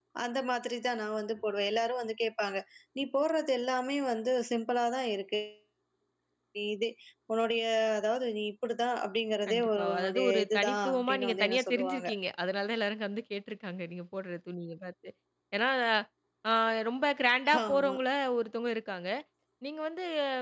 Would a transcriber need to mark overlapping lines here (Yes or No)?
Yes